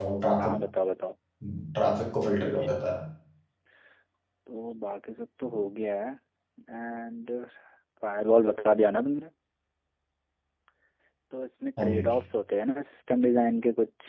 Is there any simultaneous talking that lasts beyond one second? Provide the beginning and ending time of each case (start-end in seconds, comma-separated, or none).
none